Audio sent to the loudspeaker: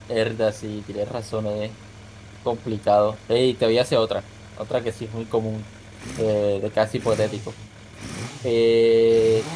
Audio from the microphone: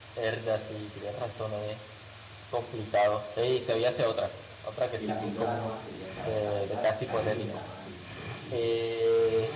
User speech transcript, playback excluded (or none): Y la píldora roja sería saber la verdad, salir de la Matrix, por decirlo así.